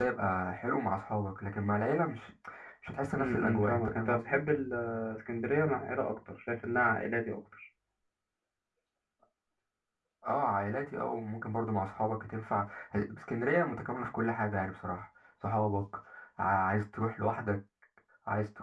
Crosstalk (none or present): present